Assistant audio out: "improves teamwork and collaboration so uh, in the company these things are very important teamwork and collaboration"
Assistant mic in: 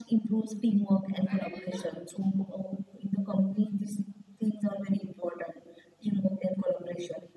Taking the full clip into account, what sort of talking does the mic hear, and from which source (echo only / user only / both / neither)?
both